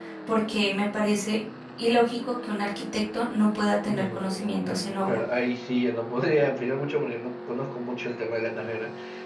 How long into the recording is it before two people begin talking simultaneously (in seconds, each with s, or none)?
3.9 s